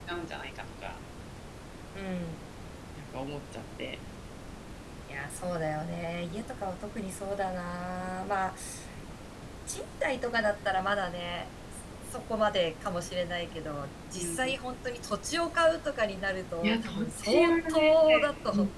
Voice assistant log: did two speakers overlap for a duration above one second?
Yes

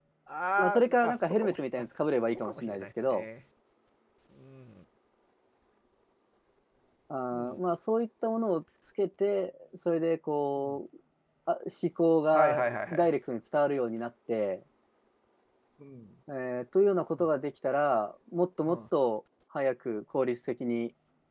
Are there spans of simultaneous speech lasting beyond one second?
Yes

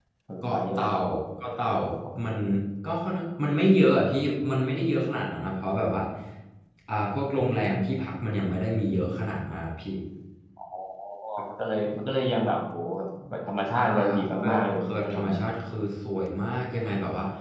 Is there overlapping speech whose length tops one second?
Yes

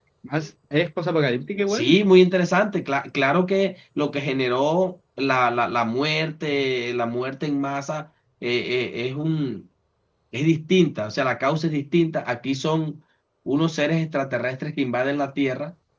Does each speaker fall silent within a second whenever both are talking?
Yes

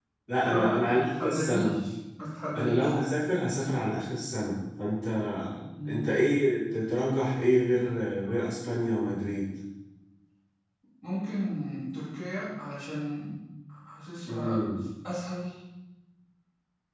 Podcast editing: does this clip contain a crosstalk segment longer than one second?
Yes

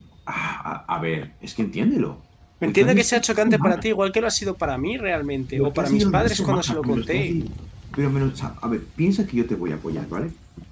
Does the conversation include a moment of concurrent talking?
Yes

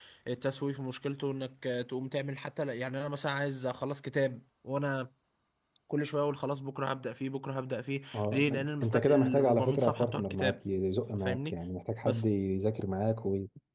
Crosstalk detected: Yes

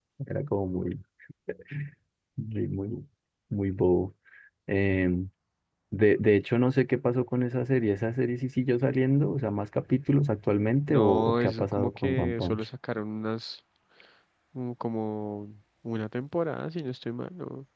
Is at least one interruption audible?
Yes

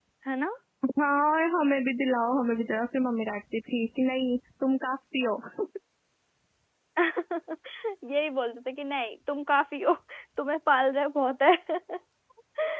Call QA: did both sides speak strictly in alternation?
Yes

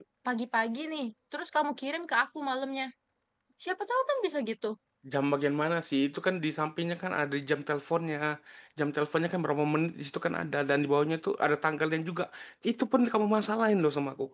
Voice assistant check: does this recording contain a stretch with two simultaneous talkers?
No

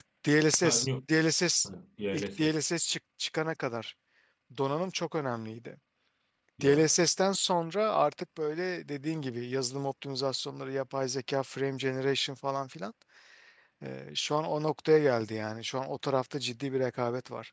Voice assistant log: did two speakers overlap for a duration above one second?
No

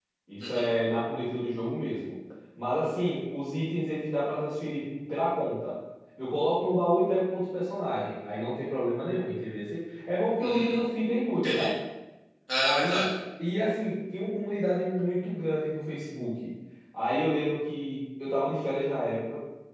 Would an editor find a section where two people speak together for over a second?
No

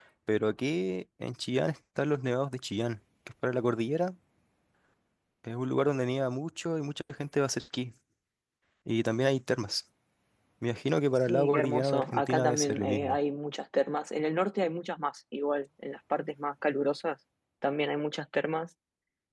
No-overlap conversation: No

